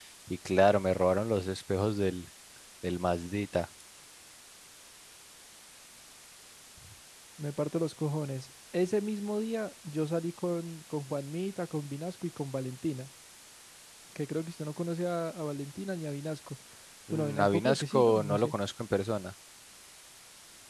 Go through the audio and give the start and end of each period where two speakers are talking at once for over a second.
17.1-18.5

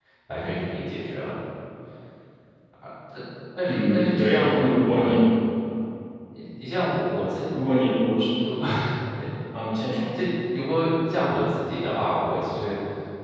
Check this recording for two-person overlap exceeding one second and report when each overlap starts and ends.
3.7-5.2

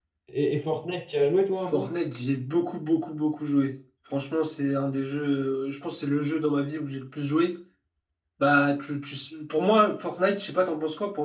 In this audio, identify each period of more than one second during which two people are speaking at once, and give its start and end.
none

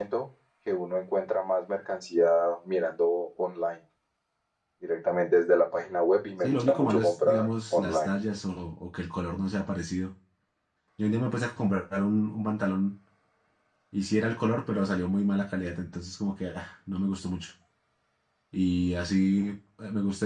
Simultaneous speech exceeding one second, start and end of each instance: 6.4-8.2

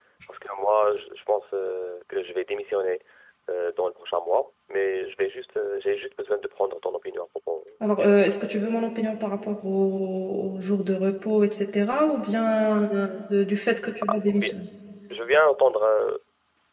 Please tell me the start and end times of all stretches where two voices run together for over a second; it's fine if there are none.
none

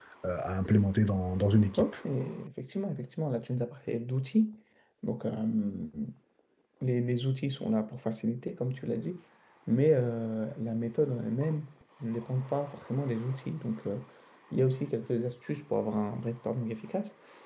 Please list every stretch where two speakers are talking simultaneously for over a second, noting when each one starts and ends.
none

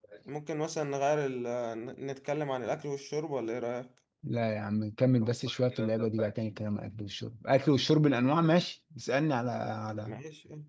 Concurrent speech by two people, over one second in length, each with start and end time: none

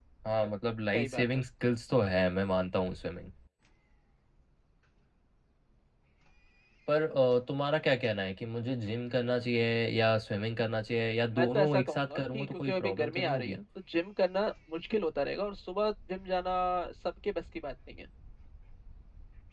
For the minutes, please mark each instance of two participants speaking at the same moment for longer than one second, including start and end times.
11.4-13.6

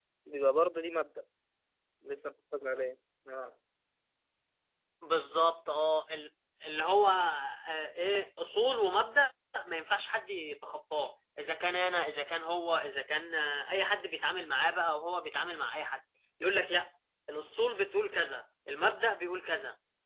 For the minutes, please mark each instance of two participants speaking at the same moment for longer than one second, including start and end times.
none

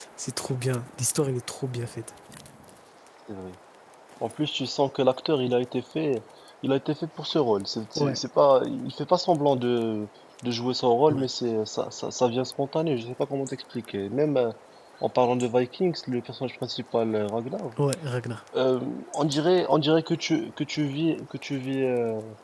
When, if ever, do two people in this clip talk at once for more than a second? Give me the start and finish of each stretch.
none

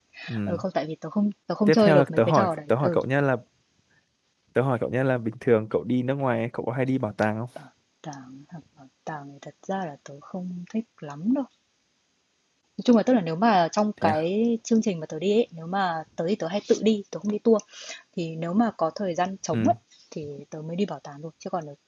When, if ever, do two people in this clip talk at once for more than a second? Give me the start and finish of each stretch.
1.7-3.0

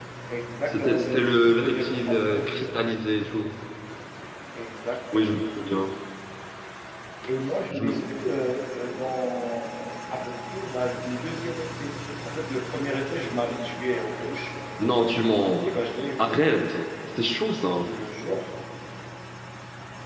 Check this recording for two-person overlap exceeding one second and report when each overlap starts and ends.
0.7-2.7

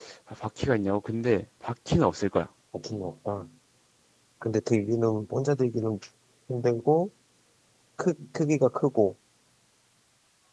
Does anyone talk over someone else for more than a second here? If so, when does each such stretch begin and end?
none

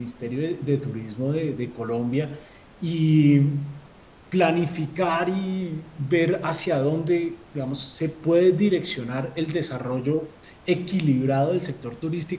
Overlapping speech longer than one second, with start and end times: none

